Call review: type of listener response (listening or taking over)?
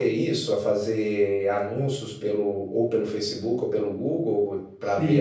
taking over